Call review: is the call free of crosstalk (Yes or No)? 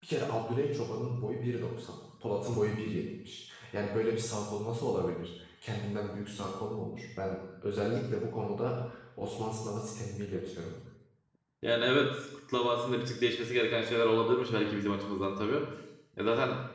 Yes